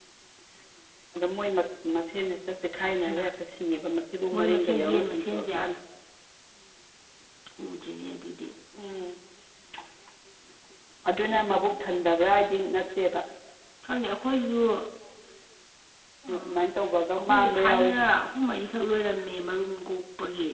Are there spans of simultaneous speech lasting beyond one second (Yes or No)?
Yes